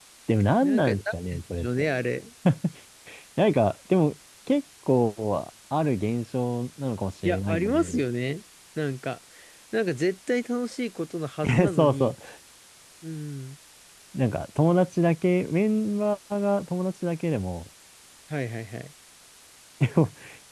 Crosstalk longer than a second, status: present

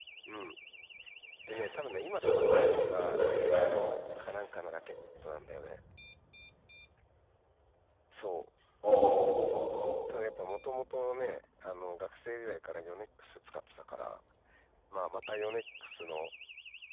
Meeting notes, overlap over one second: present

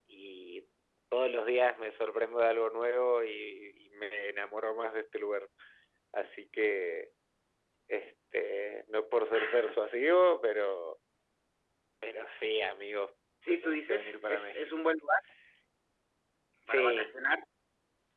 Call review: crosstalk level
present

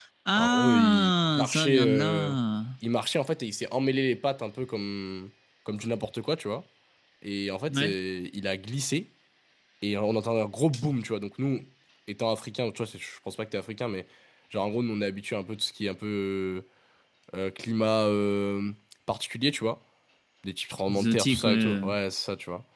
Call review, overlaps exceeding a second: present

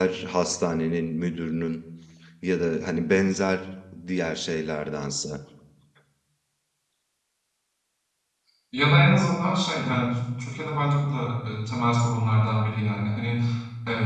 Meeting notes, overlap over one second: none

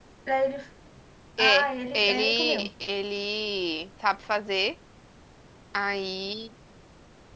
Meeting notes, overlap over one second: present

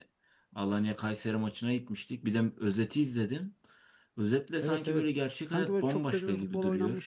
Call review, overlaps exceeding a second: present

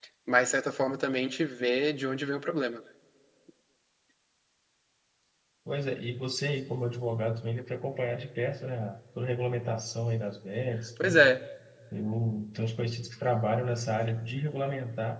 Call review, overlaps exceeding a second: none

